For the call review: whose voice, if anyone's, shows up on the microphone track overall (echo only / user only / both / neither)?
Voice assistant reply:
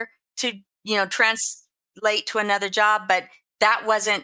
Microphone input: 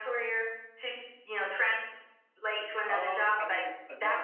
both